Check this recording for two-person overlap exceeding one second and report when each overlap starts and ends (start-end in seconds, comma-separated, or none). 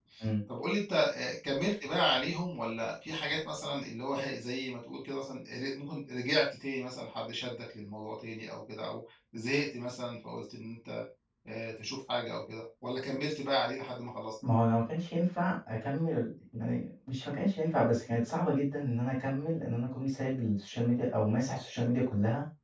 none